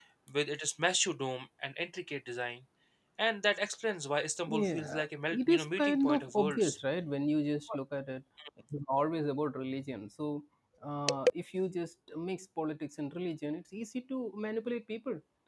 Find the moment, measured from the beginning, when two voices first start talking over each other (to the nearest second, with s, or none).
4 s